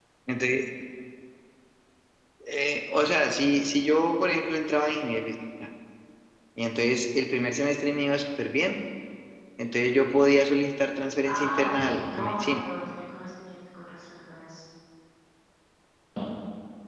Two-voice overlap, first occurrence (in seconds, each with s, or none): 11.2 s